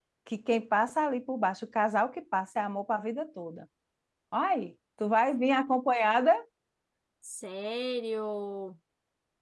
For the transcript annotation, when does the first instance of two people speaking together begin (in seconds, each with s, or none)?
none